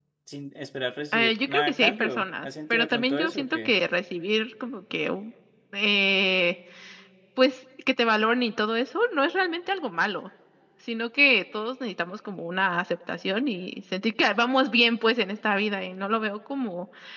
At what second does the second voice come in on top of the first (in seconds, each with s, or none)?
1.1 s